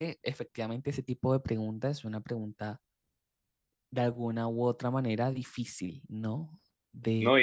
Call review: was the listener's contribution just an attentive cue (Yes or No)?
No